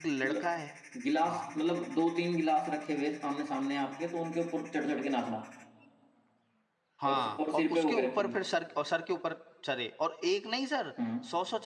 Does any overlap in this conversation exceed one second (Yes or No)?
Yes